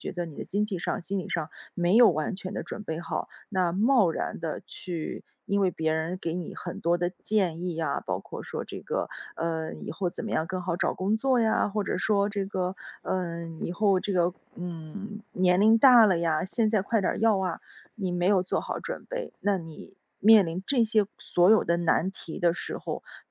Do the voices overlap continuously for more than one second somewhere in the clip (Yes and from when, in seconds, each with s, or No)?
No